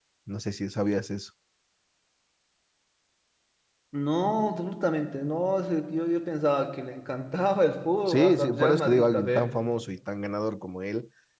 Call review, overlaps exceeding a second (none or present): present